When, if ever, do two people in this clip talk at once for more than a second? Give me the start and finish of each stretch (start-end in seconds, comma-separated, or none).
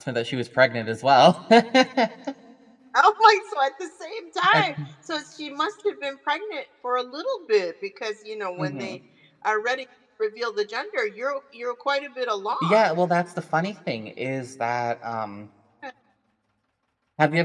none